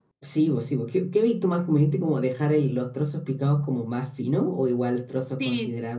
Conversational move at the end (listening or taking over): taking over